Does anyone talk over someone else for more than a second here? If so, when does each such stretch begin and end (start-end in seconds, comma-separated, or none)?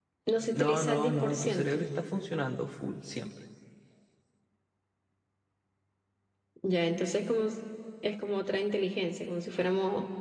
0.6-1.8